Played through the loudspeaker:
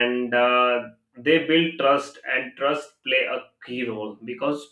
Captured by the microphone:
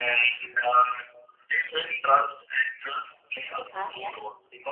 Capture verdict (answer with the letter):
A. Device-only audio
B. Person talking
B